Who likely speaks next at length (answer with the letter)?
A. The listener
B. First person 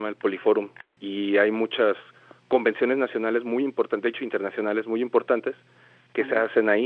B